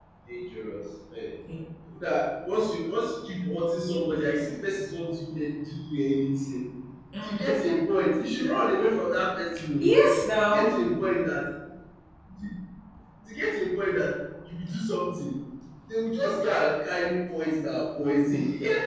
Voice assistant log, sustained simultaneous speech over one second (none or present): none